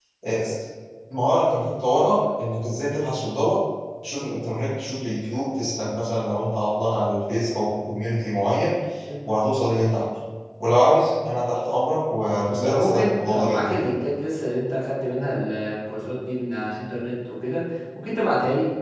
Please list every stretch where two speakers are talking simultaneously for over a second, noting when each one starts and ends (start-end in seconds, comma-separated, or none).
12.5-13.9